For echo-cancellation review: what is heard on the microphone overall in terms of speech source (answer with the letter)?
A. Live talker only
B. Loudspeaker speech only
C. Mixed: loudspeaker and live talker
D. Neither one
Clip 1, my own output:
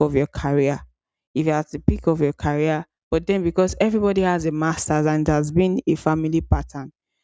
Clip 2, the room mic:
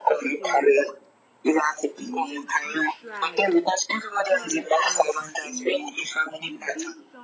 C